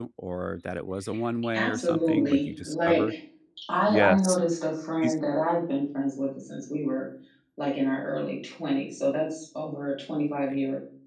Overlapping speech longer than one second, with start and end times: 1.5-3.1

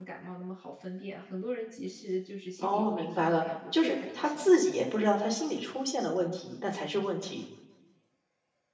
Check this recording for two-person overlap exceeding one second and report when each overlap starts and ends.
2.6-4.7

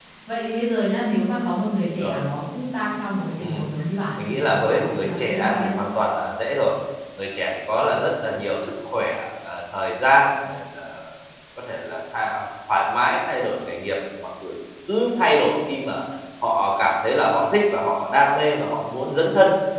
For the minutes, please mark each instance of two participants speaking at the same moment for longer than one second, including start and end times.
4.2-5.8

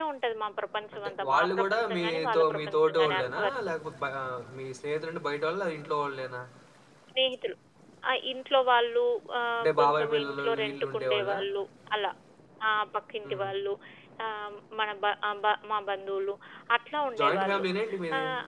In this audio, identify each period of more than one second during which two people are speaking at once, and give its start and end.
0.9-3.5, 9.6-11.4

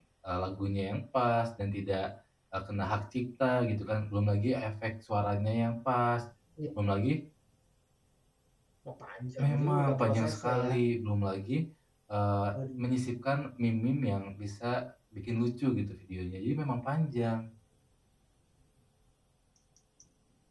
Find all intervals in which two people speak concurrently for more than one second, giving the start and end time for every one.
9.4-10.7

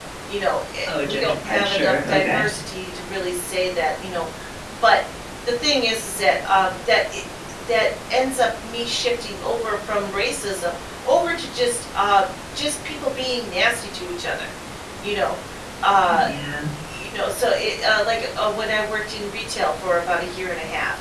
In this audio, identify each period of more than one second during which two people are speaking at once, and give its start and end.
0.9-2.4

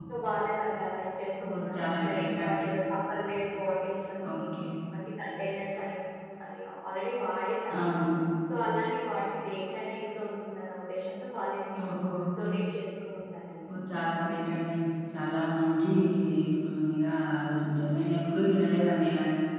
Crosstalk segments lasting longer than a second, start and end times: 1.4-2.6

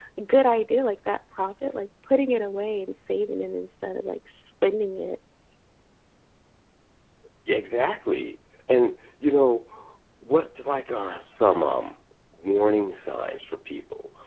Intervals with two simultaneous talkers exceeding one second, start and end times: none

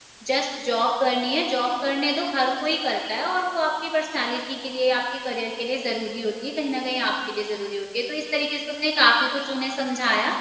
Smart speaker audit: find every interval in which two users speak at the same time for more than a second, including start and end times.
none

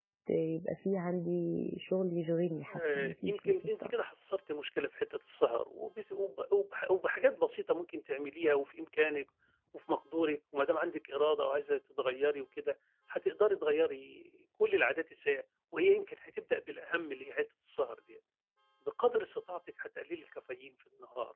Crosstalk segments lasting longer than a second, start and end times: 2.7-3.9

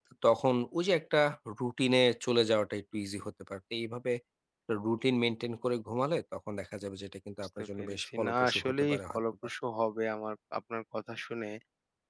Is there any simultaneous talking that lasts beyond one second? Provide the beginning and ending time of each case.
7.6-9.2

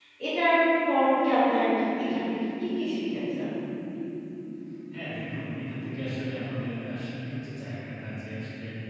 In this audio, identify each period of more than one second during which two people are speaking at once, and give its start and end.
none

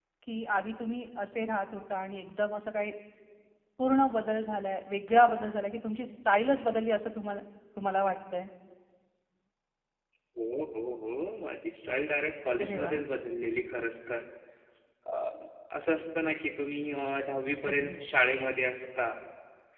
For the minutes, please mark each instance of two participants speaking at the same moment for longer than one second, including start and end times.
none

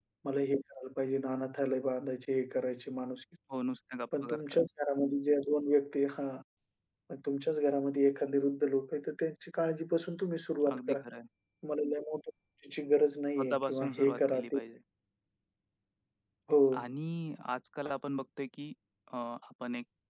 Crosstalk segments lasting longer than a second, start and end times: 13.4-14.6

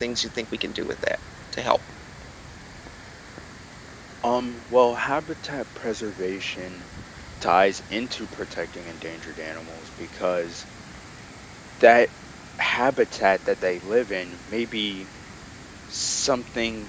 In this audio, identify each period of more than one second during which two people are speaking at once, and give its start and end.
none

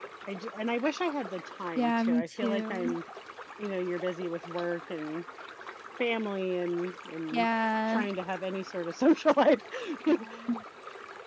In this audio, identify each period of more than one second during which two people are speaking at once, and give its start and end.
1.8-3.0

